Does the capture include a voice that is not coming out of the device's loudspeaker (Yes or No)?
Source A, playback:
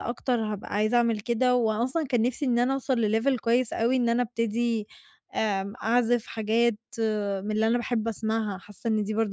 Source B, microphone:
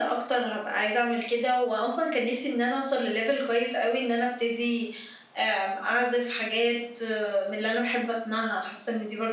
No